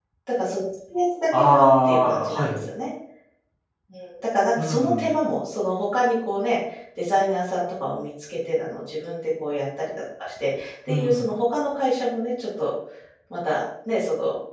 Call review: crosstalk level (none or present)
present